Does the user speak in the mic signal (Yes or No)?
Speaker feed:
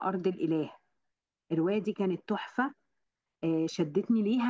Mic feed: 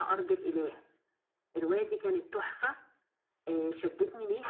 No